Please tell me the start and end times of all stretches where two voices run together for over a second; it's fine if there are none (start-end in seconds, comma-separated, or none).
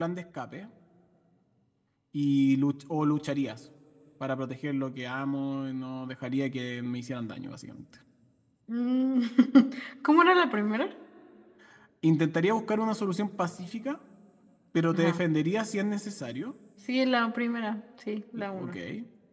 none